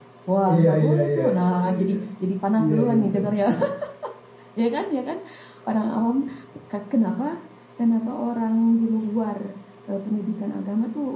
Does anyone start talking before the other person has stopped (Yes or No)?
Yes